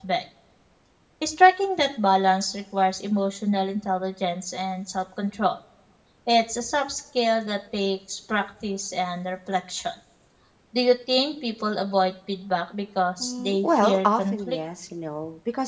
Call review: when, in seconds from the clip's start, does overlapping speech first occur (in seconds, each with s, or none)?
13.2 s